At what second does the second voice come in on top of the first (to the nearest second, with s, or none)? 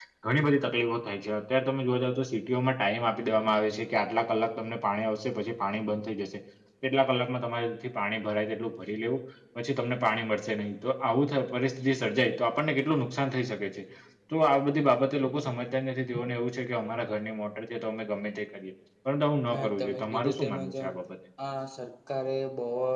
20 s